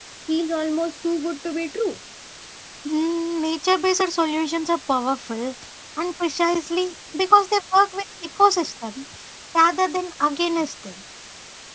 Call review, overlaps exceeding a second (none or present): none